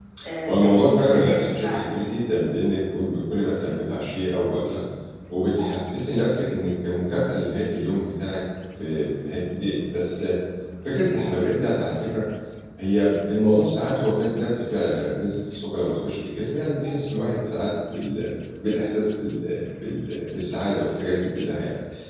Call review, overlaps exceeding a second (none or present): present